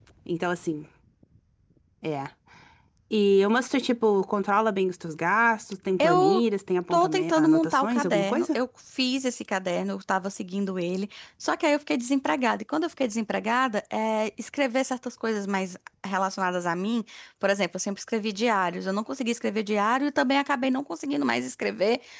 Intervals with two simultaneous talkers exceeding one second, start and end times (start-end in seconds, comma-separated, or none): 6.9-8.6